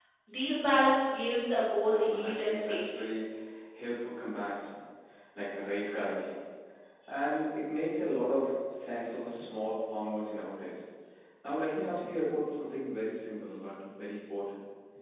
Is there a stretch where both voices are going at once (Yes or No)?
Yes